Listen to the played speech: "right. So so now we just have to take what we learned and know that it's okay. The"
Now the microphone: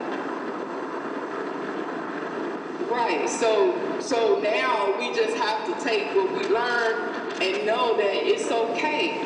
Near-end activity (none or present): none